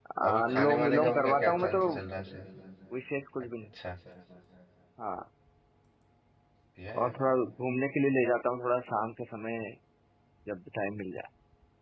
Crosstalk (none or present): present